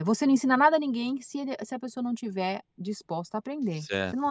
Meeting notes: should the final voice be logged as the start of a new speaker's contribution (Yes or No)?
Yes